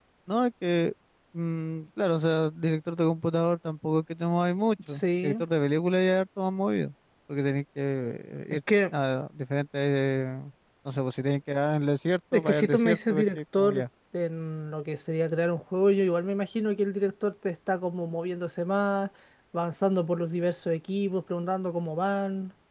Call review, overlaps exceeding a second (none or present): present